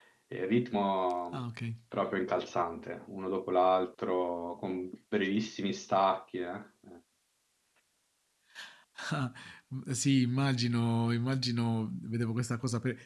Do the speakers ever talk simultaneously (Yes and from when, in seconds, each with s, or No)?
No